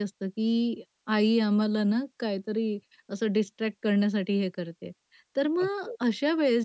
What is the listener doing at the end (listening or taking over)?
listening